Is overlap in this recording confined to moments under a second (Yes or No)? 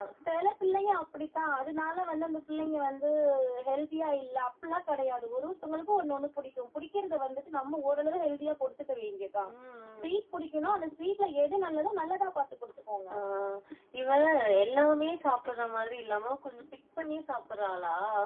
Yes